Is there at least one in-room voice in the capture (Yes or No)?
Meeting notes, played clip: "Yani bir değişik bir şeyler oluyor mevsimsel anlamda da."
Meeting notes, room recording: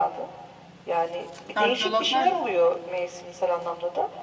Yes